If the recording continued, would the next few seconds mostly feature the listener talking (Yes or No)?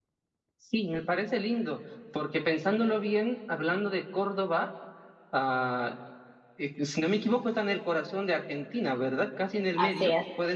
Yes